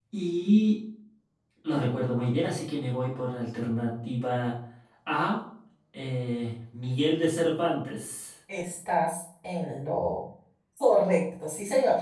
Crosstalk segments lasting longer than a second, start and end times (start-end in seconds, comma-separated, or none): none